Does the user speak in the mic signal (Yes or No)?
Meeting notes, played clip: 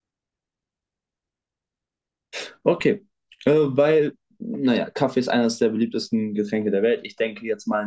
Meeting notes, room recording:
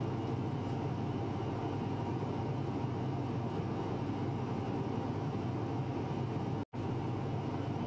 No